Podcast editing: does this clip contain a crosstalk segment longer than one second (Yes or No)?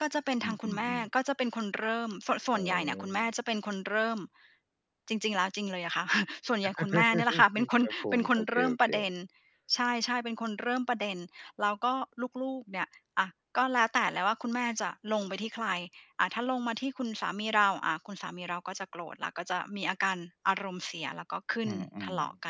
Yes